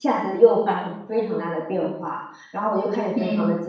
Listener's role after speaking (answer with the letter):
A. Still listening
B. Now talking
A